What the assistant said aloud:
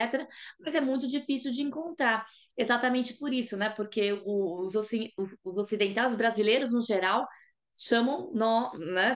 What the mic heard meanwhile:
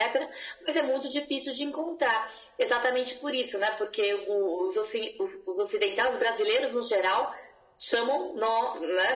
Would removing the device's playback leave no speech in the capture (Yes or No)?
Yes